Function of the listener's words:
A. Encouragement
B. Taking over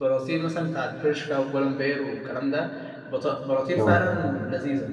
A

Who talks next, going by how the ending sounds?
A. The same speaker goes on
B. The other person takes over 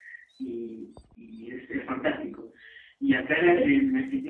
A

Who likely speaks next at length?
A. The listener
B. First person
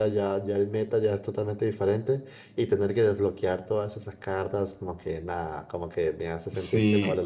A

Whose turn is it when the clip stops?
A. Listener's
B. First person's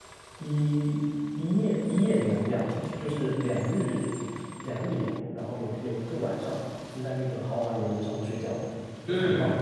A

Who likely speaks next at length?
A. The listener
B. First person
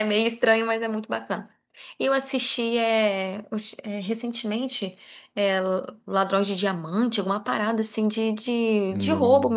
B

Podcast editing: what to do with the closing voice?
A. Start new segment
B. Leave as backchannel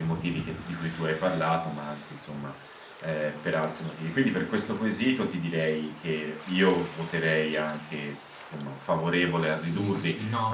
A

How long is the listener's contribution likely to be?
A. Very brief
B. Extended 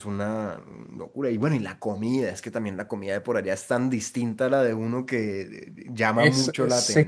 B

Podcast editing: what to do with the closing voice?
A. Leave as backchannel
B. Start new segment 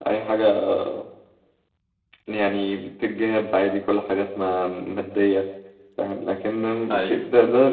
A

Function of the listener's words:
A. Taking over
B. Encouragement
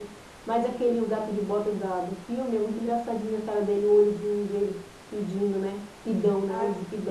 A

